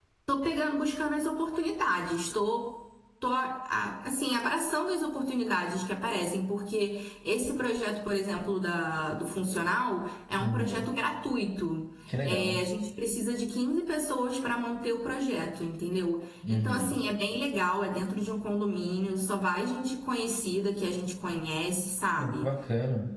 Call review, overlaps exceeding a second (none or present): none